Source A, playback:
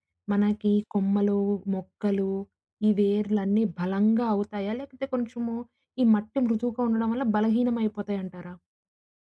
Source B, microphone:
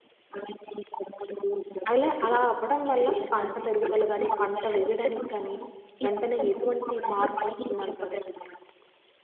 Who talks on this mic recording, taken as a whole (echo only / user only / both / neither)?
both